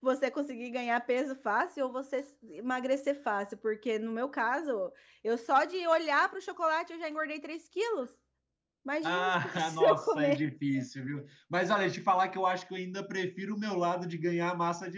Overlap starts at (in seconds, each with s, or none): 9.0 s